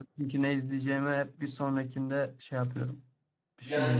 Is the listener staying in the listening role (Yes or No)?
No